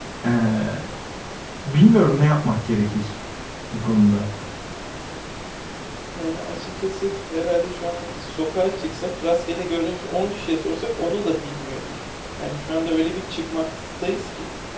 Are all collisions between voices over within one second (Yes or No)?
Yes